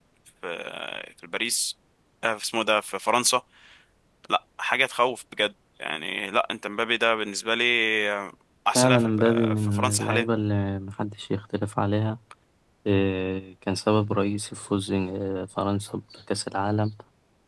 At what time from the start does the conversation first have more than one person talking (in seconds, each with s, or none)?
8.8 s